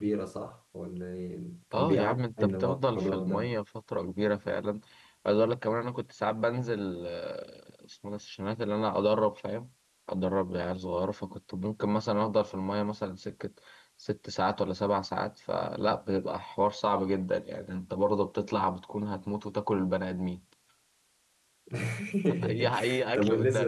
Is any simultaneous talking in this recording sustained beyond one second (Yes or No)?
Yes